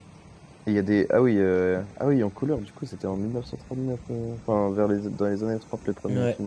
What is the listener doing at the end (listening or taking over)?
listening